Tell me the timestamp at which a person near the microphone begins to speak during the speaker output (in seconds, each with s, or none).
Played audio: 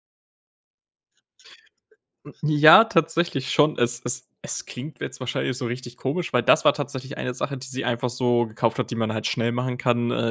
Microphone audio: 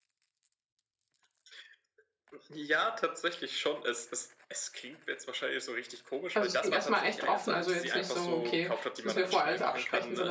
6.3 s